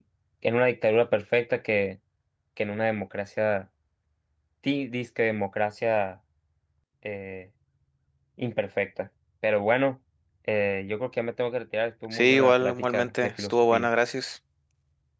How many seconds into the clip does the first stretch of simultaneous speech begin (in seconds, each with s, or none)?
12.1 s